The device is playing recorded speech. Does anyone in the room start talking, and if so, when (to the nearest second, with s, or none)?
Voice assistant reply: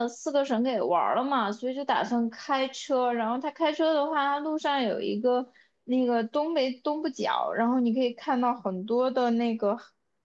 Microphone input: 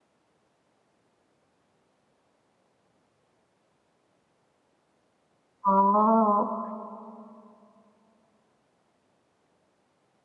6 s